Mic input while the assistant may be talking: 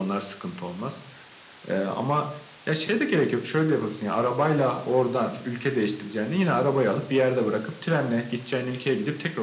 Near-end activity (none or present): none